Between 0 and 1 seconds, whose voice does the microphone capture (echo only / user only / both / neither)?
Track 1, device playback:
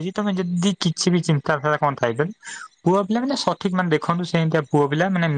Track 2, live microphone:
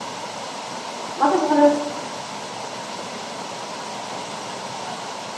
neither